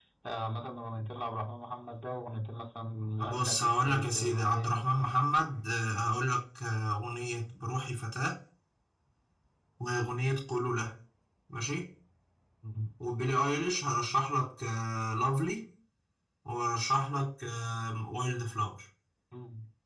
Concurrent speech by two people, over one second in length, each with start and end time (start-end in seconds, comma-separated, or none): 3.2-5.1